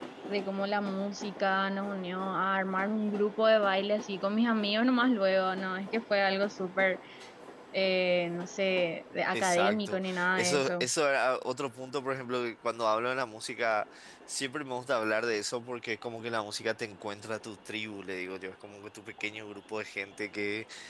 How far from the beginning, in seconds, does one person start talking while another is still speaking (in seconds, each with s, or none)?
9.3 s